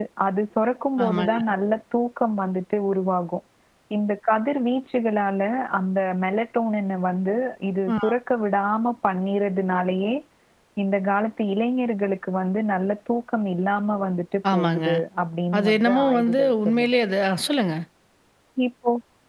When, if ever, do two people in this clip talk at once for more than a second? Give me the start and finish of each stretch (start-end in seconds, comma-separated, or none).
15.6-17.0